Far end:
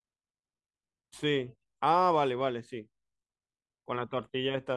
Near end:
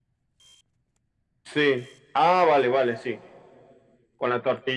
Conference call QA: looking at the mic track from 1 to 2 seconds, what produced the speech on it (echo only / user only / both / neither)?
echo only